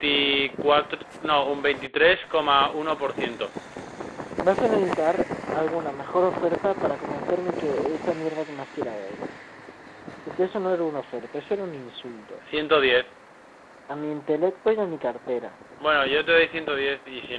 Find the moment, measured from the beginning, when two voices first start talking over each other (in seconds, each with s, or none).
none